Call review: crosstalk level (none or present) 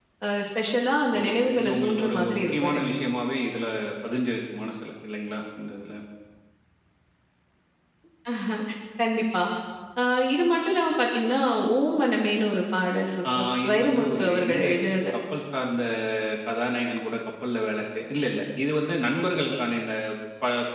present